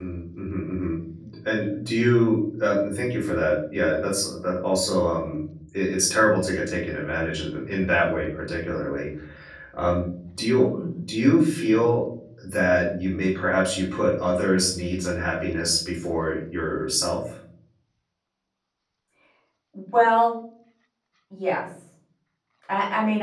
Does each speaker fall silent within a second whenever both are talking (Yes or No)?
Yes